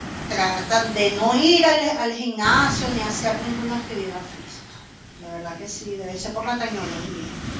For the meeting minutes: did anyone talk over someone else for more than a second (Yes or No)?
No